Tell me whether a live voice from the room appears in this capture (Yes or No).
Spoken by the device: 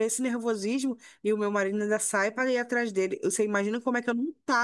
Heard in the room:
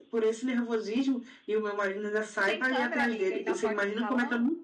Yes